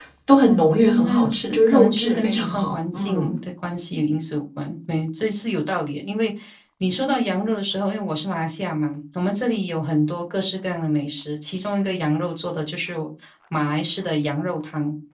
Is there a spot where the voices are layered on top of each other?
Yes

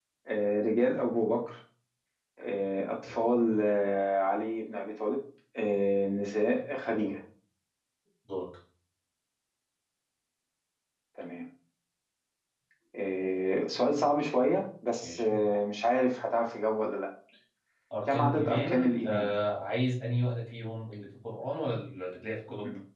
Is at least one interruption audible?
Yes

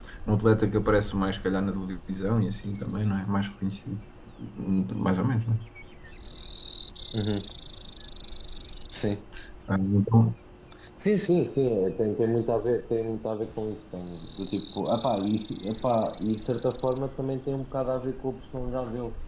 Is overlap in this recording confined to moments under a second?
Yes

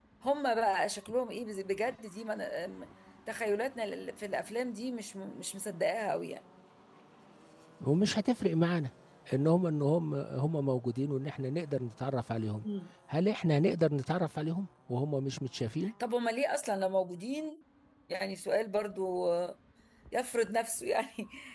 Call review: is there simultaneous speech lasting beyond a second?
No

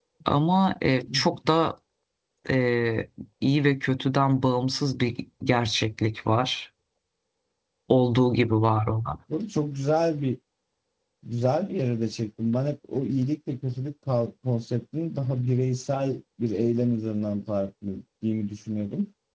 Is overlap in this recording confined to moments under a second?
Yes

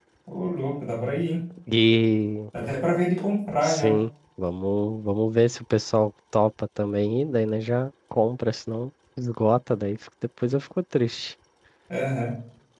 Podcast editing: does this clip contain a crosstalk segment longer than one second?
No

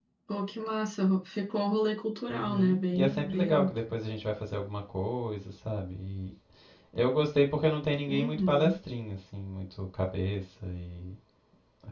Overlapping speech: Yes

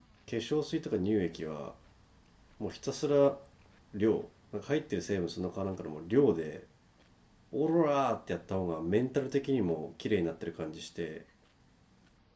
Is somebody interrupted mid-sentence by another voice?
No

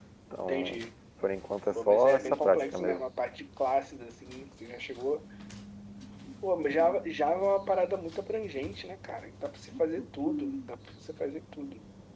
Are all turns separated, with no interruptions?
No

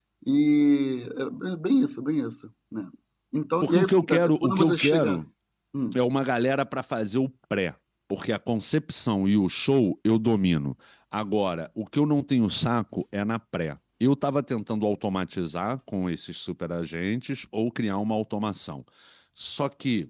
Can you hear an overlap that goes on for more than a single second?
Yes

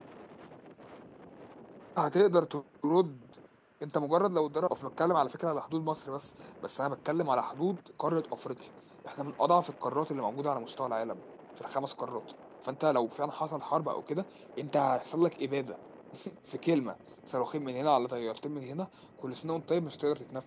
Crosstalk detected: No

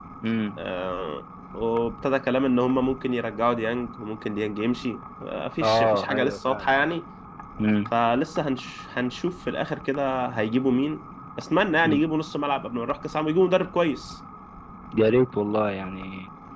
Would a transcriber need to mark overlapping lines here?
Yes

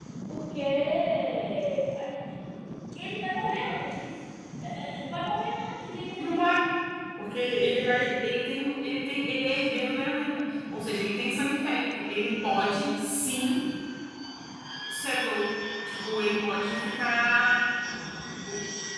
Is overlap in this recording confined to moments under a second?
Yes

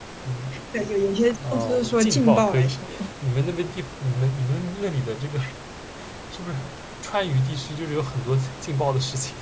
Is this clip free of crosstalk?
No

